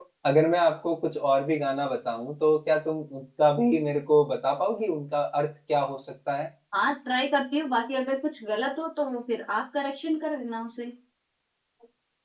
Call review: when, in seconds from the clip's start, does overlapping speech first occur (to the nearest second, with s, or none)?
none